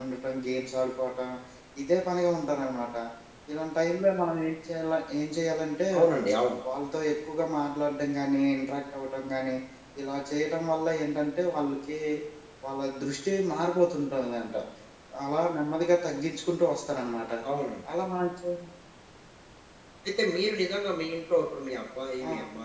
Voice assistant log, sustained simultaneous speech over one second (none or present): none